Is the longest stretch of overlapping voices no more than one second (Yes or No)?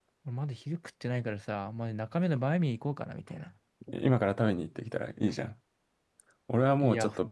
Yes